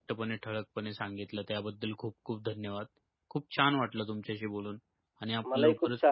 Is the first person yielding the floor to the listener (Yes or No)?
Yes